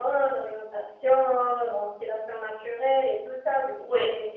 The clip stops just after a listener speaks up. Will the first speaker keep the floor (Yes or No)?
Yes